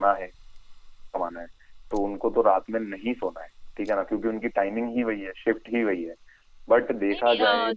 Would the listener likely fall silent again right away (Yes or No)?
No